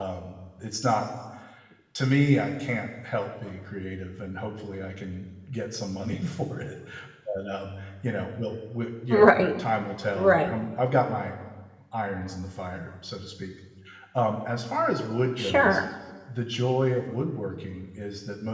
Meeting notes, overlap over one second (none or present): none